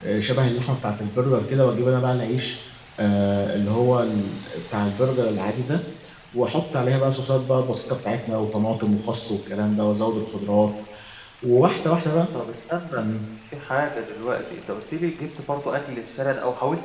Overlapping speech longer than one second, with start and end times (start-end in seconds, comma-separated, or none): none